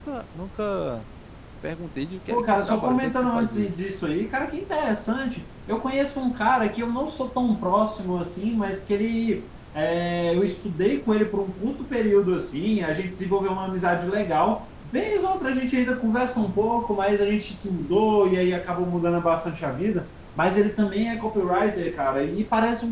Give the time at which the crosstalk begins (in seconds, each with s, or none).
2.3 s